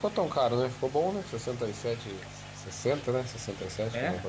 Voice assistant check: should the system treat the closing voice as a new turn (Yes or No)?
Yes